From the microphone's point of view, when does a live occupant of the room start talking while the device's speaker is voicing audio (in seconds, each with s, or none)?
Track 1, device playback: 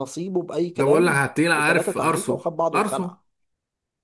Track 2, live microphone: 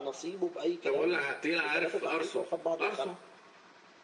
none